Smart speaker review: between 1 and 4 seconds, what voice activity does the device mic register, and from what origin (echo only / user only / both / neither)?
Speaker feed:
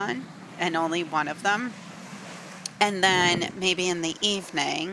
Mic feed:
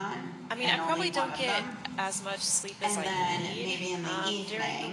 both